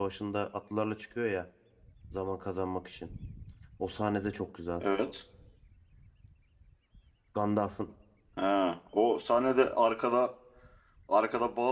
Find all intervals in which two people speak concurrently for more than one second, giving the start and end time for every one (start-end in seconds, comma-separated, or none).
none